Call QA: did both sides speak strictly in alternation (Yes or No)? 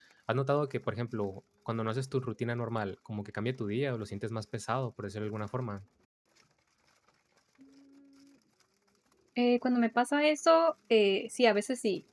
Yes